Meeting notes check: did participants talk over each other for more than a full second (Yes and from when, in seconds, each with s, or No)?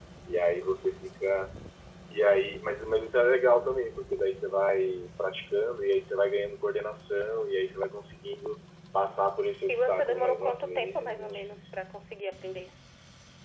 Yes, from 9.7 s